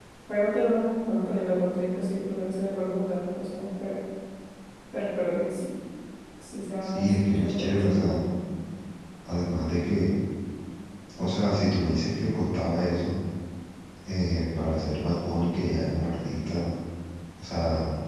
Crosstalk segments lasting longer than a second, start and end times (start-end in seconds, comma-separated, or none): 6.8-8.3